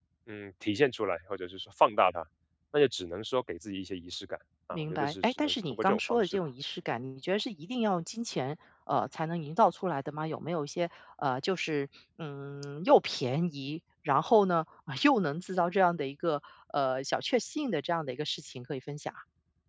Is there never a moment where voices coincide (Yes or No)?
No